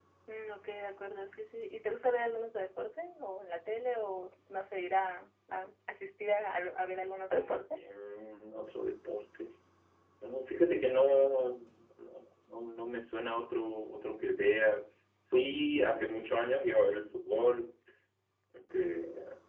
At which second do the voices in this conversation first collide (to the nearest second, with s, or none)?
none